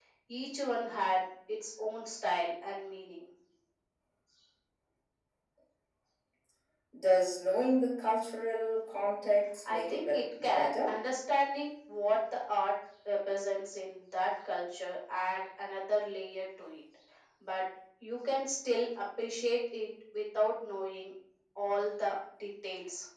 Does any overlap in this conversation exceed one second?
Yes, from 9.7 s

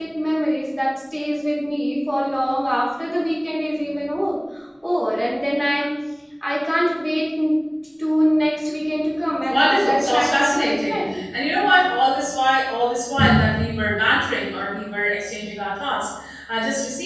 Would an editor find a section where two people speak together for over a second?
Yes, from 9.5 s

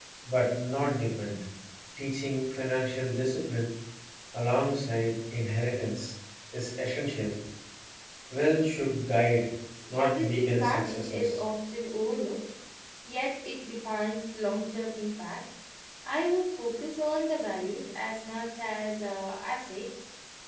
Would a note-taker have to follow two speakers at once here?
Yes, from 9.9 s

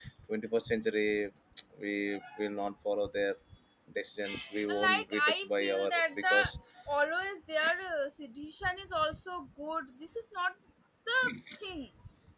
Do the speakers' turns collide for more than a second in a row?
Yes, from 4.8 s

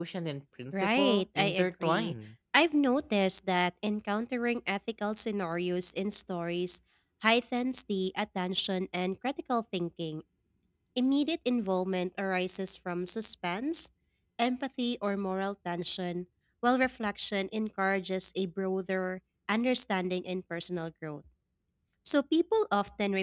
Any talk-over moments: Yes, from 0.7 s

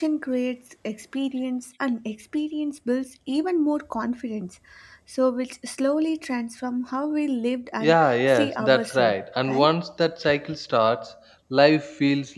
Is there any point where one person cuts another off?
Yes, from 7.8 s

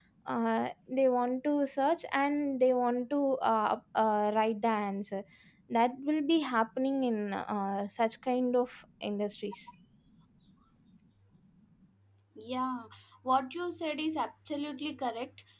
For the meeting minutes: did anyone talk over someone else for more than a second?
No

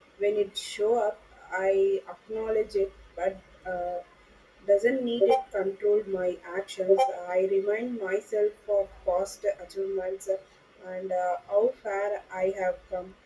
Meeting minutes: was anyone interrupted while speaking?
No

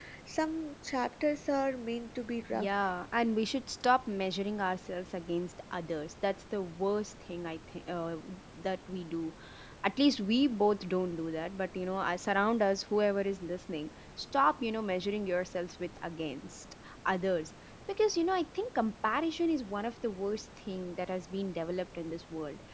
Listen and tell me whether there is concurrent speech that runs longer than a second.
No

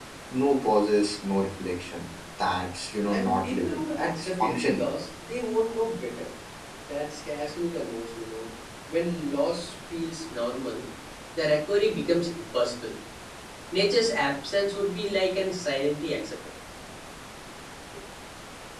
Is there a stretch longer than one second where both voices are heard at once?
Yes, from 3.0 s

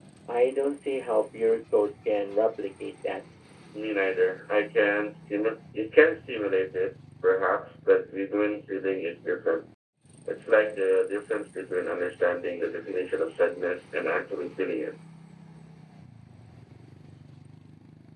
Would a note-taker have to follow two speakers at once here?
No

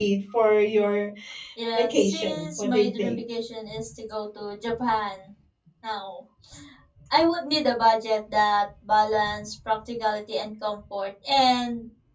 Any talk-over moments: Yes, from 1.7 s

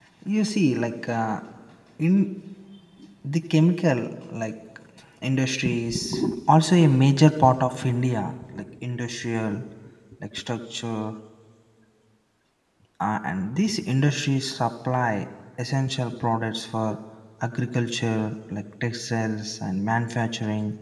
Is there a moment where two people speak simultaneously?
No

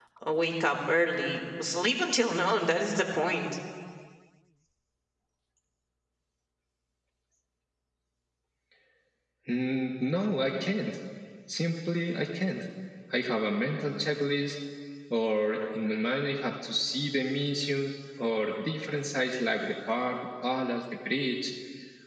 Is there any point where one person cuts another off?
No

